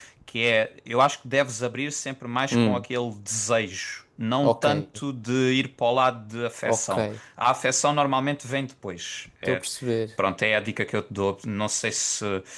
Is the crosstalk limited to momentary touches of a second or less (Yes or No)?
Yes